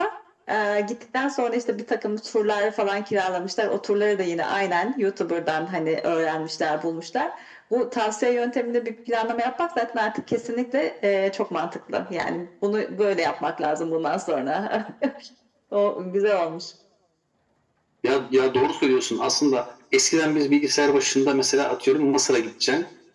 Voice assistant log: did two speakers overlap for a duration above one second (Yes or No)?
No